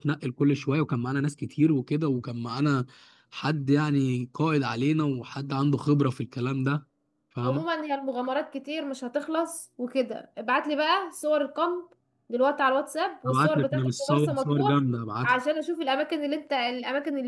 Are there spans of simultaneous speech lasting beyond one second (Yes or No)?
Yes